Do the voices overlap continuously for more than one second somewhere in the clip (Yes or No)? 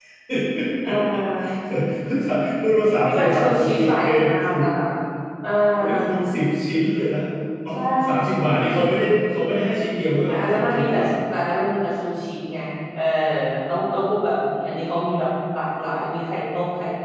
Yes